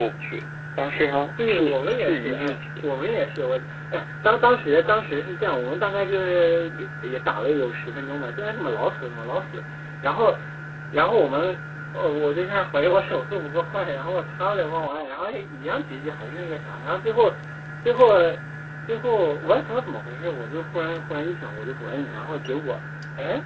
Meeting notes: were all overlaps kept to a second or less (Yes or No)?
No